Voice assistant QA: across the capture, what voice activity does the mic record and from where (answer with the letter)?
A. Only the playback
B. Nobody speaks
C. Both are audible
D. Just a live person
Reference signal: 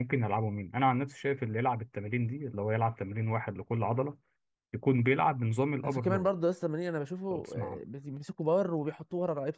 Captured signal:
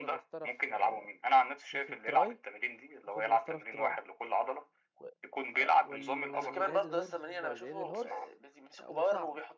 C